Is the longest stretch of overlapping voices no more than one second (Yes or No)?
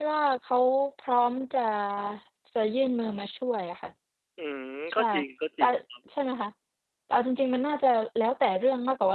Yes